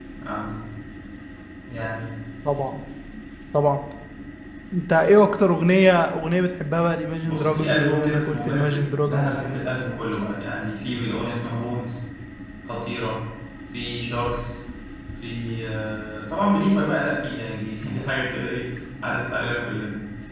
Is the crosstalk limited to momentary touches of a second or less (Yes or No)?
No